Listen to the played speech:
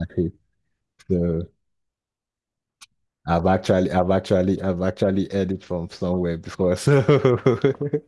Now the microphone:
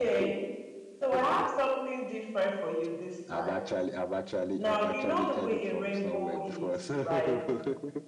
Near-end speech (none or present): present